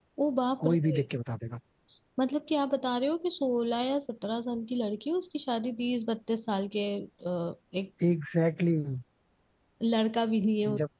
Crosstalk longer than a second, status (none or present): none